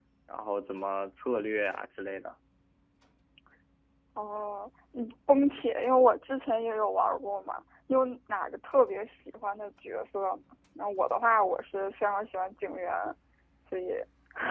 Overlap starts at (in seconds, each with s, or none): none